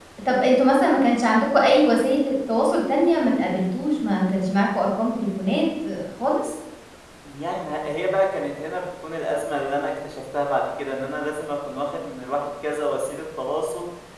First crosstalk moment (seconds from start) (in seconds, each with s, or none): none